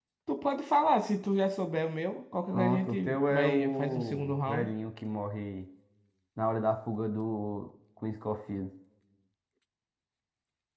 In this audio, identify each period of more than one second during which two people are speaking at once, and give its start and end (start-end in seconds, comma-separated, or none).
2.5-4.7